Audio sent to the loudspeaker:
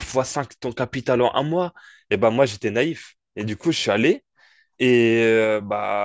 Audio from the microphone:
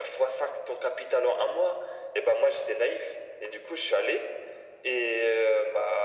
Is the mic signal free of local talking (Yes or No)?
Yes